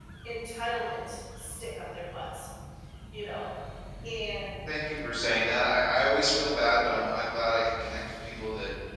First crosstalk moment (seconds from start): none

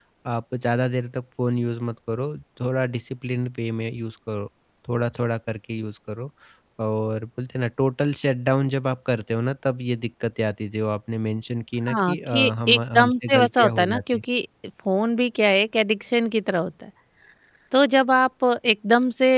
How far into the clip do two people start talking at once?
11.9 s

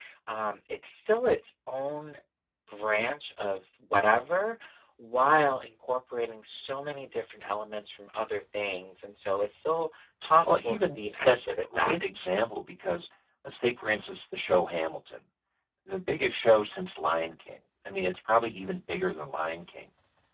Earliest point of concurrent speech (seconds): 10.4 s

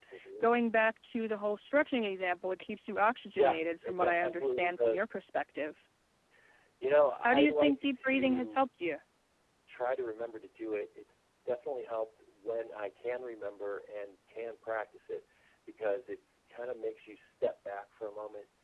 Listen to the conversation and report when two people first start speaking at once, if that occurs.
3.4 s

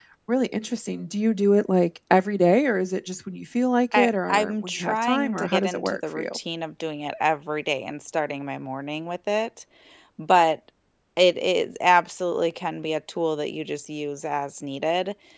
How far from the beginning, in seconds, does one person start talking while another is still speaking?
3.9 s

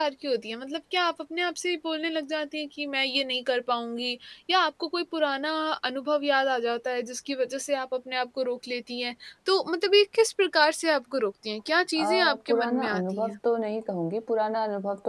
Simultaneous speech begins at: 12.0 s

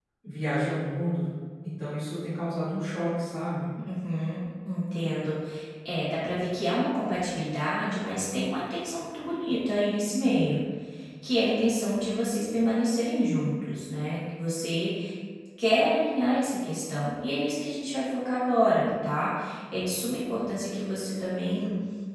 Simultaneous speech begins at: none

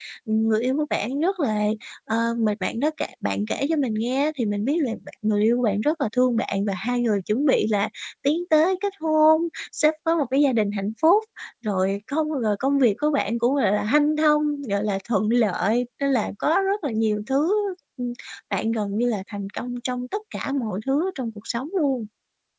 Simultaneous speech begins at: none

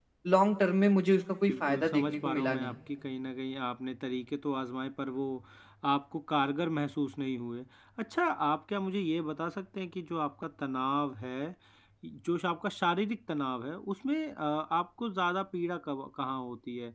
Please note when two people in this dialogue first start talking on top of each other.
1.5 s

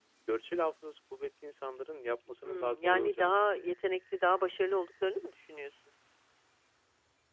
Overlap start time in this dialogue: 2.4 s

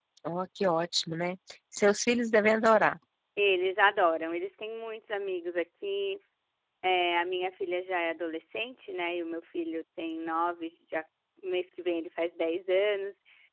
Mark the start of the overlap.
none

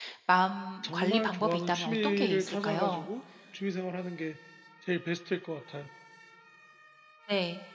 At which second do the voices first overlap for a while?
0.8 s

